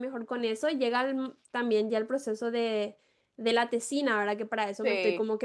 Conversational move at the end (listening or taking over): listening